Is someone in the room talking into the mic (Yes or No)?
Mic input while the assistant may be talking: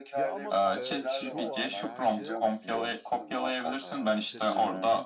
Yes